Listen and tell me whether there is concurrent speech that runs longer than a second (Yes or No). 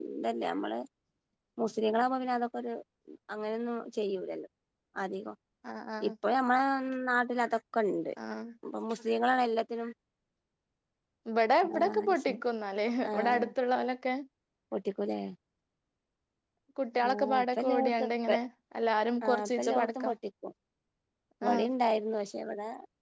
Yes